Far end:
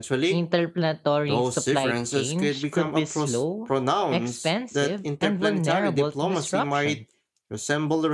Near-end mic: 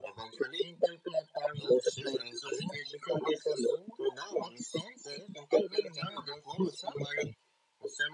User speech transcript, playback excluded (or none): none